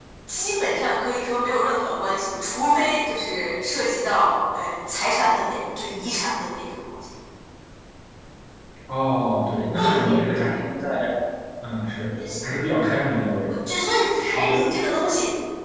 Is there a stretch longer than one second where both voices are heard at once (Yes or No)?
No